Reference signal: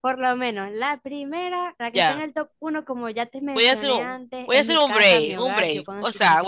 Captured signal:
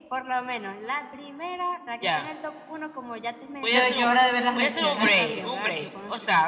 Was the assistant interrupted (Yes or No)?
Yes